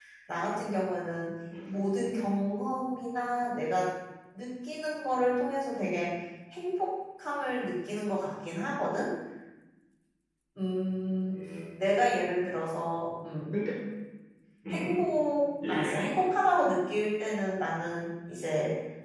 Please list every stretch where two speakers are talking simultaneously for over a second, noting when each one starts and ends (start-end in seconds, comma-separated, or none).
none